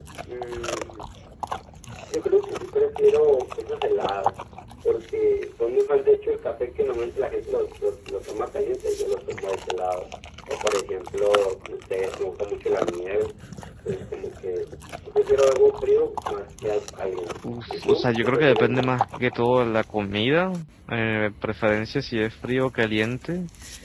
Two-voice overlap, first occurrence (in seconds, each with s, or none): 17.7 s